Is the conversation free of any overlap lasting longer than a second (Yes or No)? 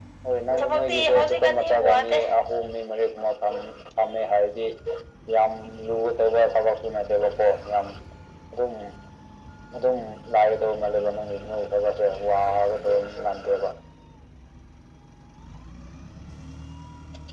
No